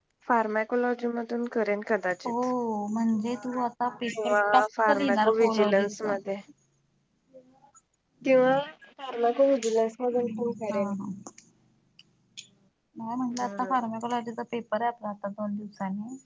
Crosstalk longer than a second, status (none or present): present